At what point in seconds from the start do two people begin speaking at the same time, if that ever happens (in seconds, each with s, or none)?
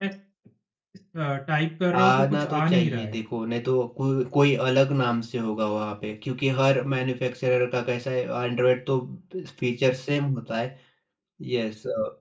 1.9 s